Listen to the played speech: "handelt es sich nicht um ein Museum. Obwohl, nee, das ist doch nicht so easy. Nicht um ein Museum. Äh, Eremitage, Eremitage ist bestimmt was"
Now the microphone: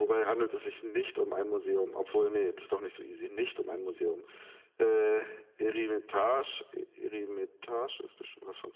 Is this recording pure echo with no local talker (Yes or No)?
Yes